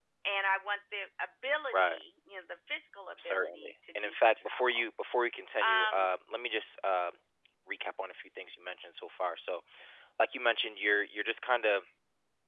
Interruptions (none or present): present